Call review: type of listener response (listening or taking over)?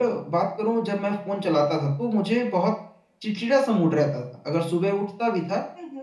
listening